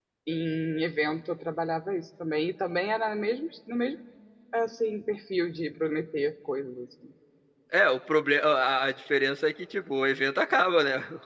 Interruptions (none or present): none